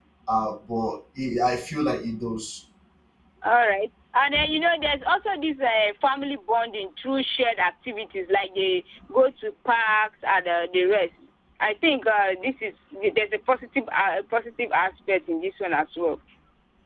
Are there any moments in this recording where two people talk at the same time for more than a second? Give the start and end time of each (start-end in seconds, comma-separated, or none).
none